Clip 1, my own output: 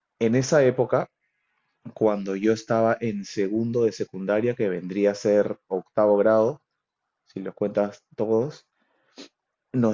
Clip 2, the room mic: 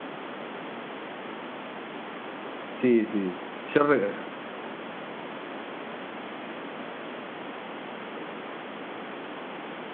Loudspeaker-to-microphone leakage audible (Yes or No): No